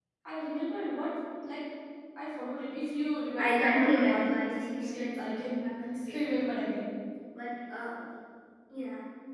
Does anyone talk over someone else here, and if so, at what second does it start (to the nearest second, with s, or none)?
3 s